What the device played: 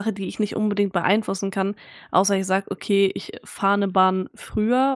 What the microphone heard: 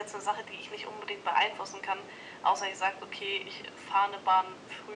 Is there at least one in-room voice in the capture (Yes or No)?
No